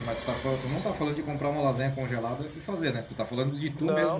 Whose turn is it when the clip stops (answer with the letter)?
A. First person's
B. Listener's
B